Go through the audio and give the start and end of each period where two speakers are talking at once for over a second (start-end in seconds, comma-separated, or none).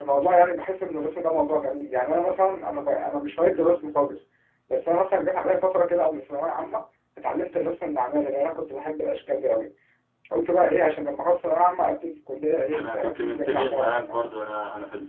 12.7-14.2